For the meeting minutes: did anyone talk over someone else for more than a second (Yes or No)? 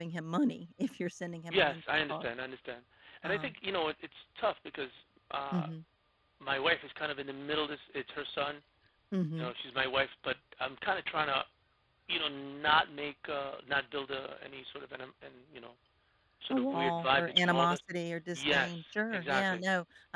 Yes